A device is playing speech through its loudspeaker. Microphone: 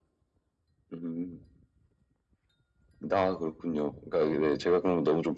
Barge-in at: none

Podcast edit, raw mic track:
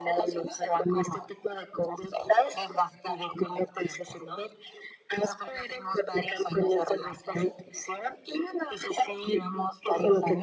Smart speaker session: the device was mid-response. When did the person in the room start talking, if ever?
none

